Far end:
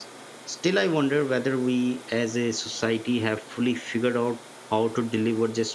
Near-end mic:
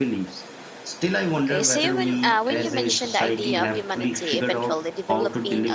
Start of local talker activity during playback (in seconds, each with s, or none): 1.4 s